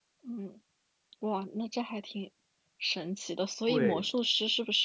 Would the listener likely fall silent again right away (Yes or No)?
Yes